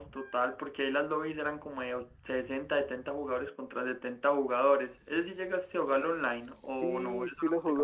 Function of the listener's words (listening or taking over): taking over